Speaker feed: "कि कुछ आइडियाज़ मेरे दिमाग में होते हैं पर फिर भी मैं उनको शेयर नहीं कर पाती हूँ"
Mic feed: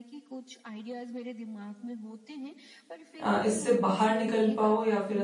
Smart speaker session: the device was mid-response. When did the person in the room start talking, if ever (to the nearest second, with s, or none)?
3 s